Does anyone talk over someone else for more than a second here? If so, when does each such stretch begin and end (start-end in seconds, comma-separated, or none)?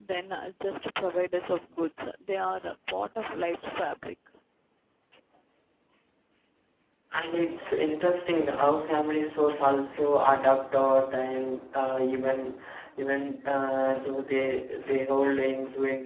none